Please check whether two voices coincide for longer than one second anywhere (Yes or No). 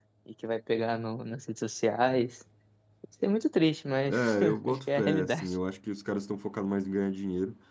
Yes